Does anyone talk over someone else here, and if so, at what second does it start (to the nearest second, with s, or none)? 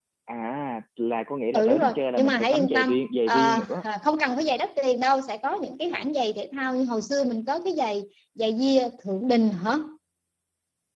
2 s